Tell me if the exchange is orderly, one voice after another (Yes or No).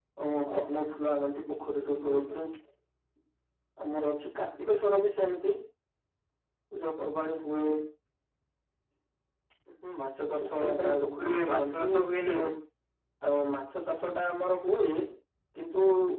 No